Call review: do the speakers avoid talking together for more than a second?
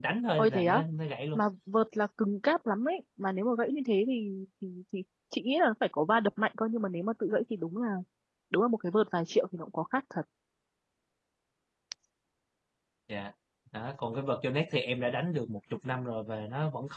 Yes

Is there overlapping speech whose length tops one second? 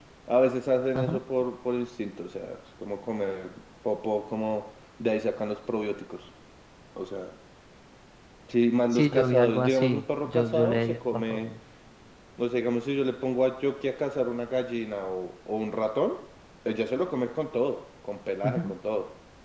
Yes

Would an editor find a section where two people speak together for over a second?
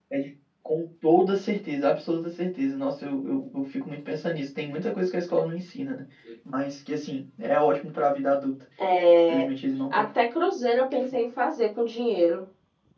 No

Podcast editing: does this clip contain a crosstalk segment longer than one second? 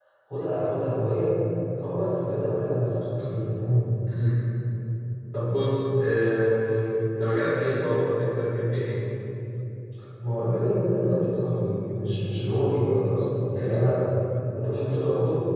No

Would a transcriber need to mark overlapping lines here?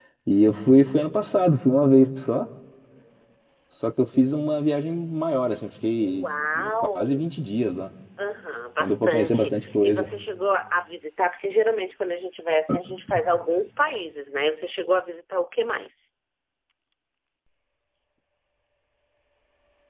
Yes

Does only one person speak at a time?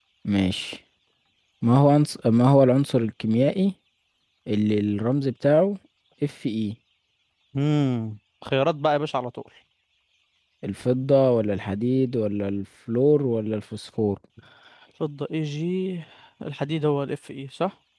Yes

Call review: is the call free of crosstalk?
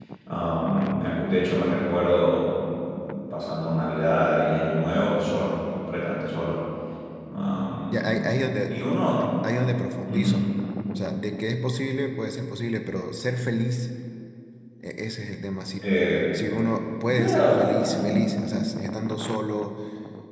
No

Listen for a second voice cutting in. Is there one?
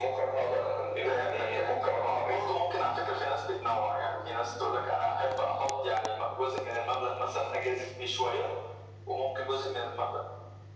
Yes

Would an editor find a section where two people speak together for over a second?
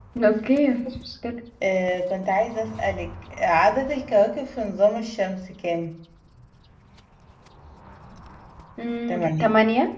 No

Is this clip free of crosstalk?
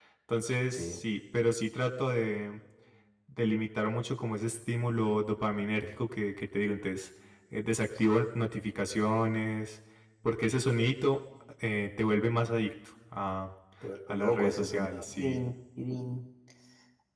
No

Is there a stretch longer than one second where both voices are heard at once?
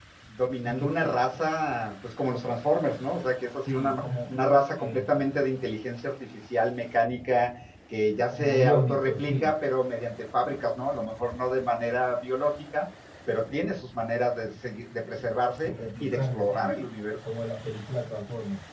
Yes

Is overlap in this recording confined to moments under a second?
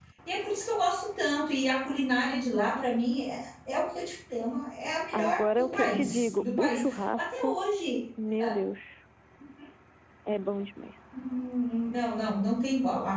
No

